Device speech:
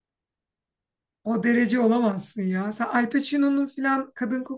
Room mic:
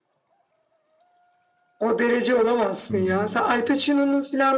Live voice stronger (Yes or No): No